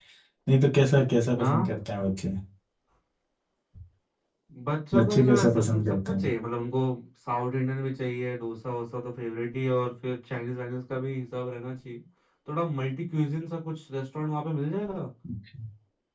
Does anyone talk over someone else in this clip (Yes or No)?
Yes